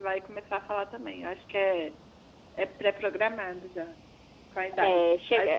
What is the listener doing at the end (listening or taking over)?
listening